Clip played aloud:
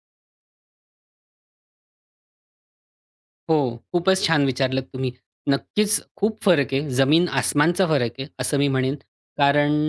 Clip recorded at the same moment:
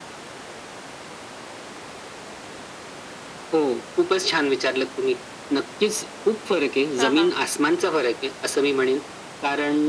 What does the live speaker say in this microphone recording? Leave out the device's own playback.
हां, हां.

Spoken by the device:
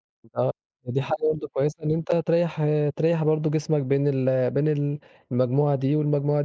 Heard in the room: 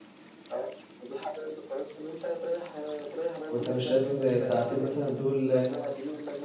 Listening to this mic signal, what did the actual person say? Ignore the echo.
وأنت مش شايف إن ساعتين مثلًا دول

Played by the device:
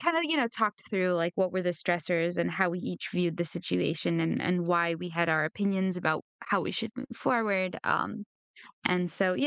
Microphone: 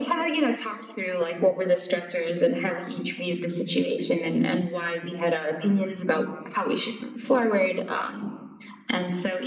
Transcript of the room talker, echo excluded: none

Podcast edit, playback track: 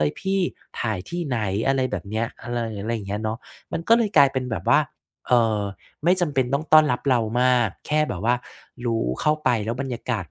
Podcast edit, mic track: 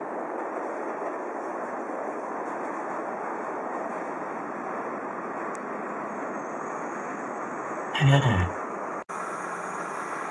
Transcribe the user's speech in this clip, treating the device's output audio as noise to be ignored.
อา

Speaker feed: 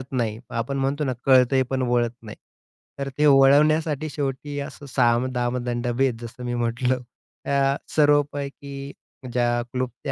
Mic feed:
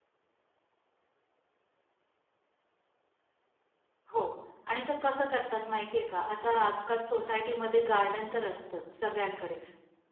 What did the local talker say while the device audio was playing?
हो. आणि ते कसं करतात माहिती आहे का, आता आजकाल सोसायटीमध्ये गार्डन तर असतंच सगळ्यांकडे.

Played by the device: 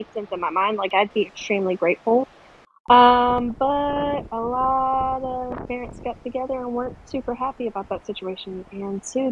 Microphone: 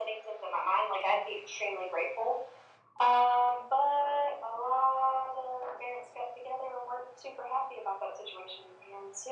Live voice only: none

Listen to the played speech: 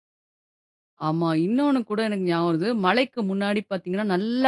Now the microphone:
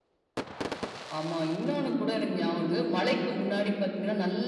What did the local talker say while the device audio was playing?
none

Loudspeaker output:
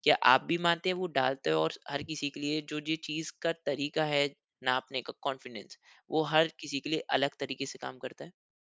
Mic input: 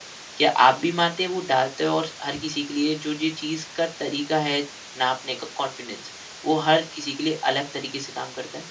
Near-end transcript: none

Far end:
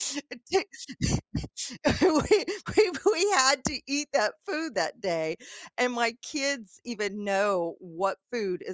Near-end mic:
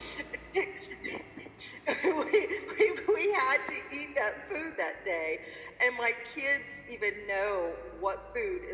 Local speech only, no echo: none

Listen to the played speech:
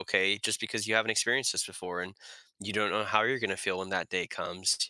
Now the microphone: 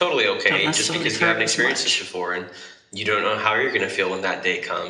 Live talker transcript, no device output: don't necessarily hurt as much.

